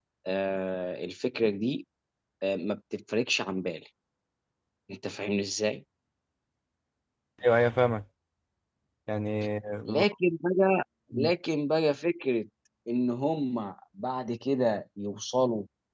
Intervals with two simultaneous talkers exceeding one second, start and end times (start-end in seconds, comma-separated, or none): none